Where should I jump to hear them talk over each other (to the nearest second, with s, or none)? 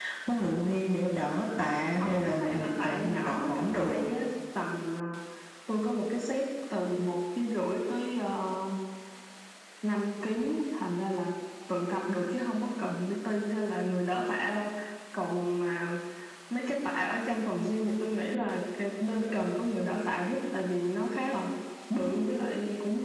2 s